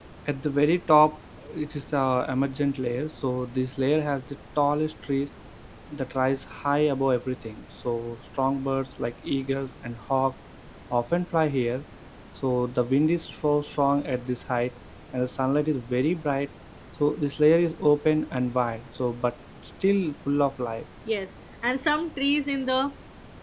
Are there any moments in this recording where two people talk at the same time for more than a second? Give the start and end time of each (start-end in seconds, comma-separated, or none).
none